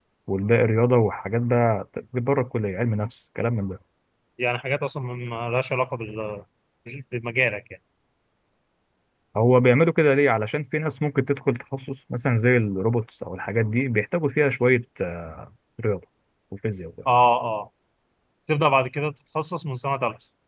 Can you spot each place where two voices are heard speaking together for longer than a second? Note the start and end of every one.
none

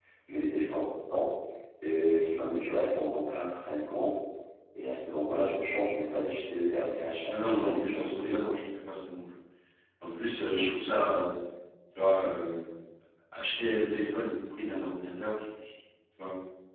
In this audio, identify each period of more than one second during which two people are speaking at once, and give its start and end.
7.3-8.6

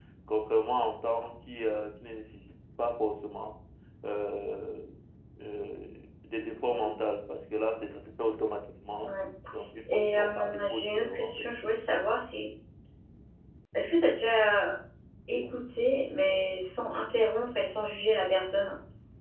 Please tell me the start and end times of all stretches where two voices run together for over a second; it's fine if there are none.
9.9-11.4

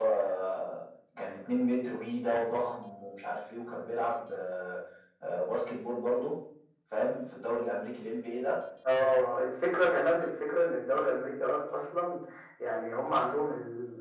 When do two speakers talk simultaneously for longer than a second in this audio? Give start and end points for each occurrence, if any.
none

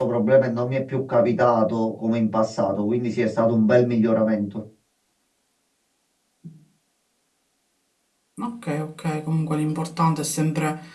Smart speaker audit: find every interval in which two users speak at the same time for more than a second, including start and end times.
none

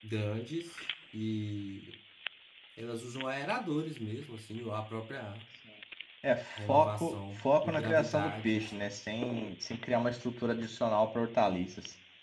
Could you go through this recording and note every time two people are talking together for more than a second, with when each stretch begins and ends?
6.6-8.9

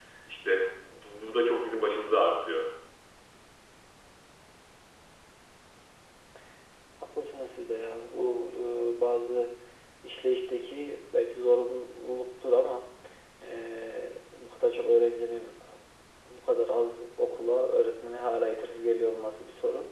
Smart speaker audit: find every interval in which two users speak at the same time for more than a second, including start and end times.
none

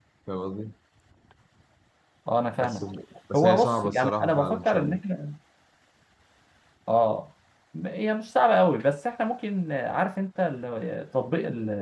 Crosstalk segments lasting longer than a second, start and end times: 3.4-5.0

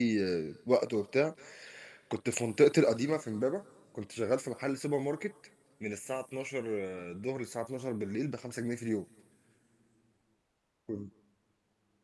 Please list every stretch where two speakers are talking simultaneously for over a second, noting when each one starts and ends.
none

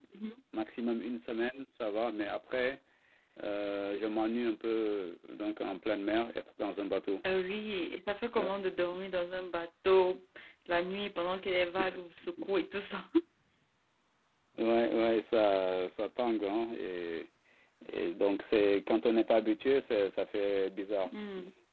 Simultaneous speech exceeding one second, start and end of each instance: none

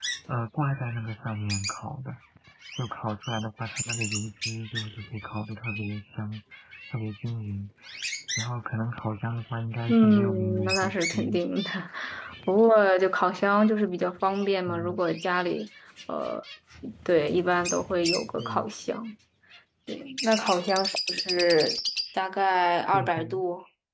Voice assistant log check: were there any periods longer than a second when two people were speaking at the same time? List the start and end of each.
9.9-11.4

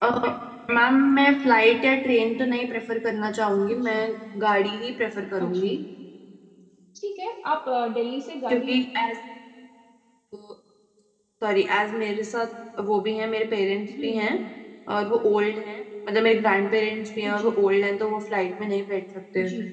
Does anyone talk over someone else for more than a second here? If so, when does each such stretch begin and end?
none

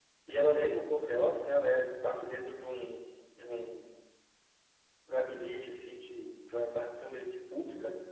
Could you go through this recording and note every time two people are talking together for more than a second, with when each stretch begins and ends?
none

